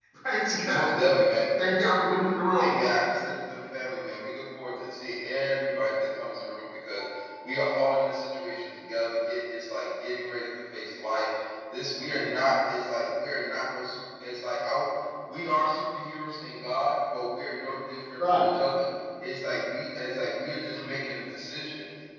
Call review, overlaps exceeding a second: none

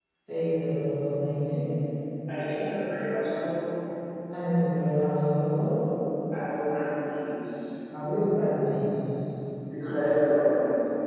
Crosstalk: none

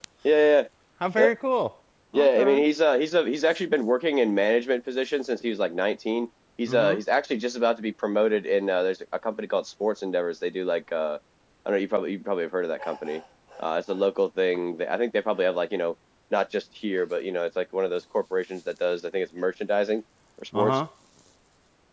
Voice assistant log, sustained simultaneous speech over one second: none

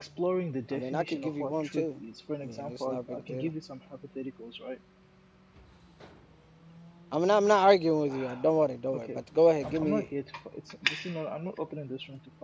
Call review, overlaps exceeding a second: present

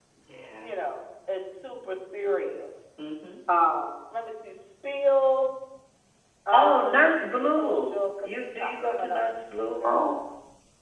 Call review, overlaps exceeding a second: present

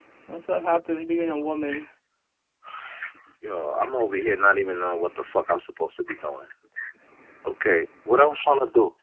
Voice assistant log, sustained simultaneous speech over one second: none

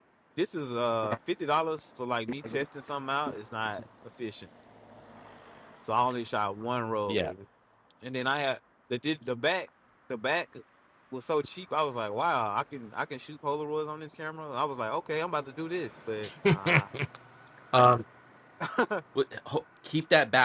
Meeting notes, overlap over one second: none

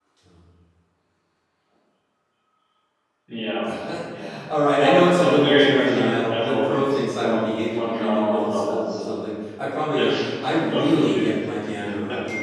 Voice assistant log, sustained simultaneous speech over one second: present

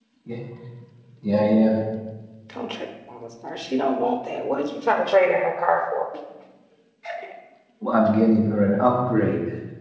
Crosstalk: none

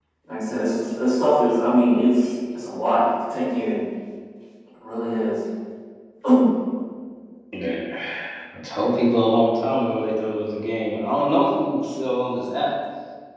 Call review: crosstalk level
none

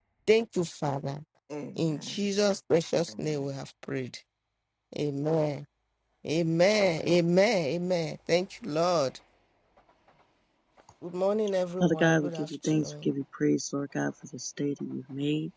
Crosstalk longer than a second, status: present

